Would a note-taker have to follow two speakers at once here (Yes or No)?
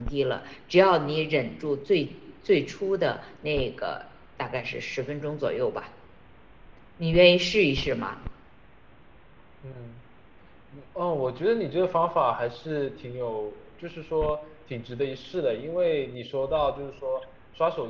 No